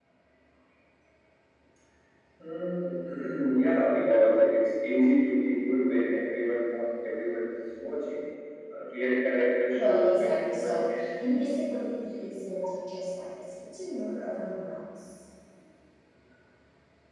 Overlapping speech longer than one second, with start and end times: 9.8-11.5

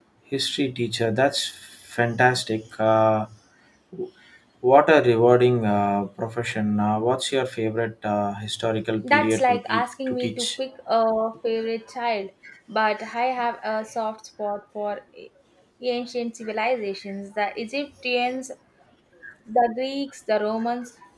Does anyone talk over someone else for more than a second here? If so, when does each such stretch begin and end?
9.1-10.5

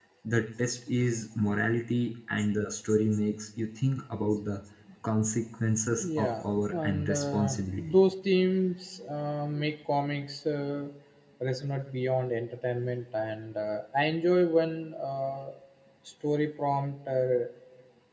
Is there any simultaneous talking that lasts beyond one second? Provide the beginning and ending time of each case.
6.0-8.0

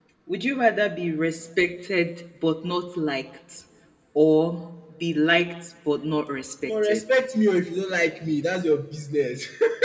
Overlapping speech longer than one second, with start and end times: none

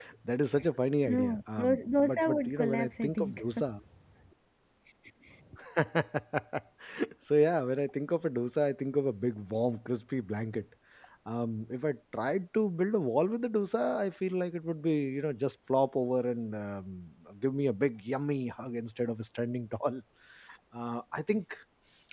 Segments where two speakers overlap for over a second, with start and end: 1.0-3.4

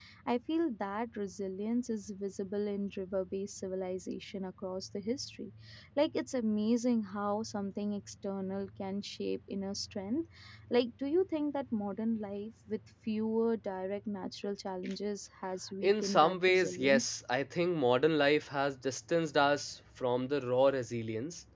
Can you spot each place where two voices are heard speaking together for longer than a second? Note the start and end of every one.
15.8-17.1

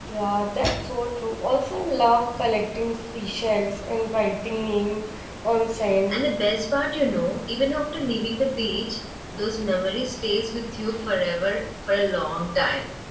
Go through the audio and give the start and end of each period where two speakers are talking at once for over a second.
none

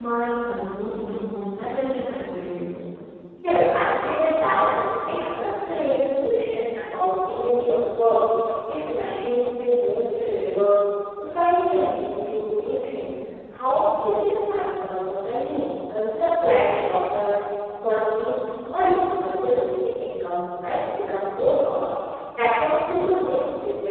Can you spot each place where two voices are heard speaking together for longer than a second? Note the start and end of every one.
none

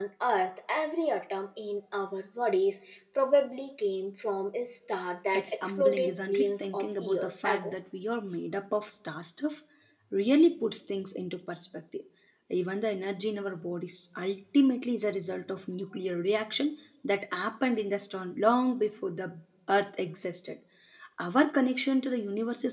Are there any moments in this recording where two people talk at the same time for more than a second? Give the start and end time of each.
5.3-7.7

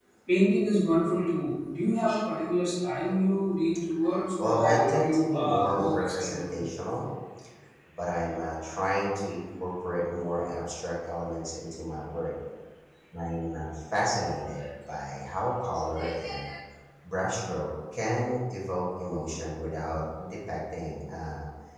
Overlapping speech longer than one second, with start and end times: 4.4-6.6

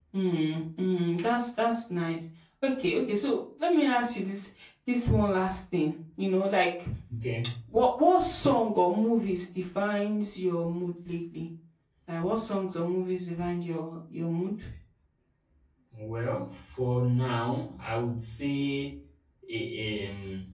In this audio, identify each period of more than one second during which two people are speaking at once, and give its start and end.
none

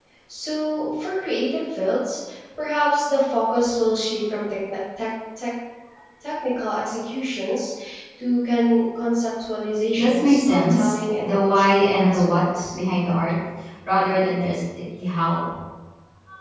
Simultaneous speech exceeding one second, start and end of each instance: 10.0-12.7

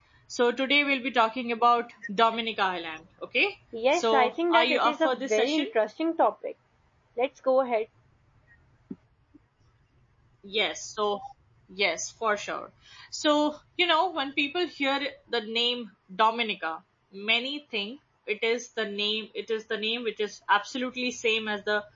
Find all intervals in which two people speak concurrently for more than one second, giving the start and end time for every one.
3.9-5.7

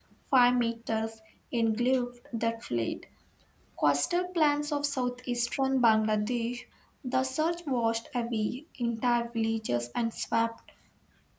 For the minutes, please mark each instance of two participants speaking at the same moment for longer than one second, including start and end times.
none

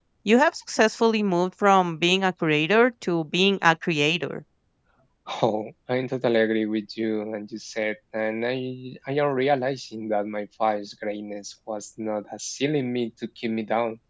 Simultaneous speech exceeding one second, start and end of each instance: none

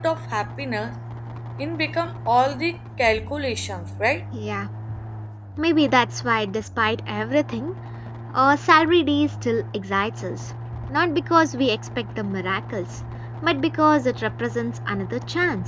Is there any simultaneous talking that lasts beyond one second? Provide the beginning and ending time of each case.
none

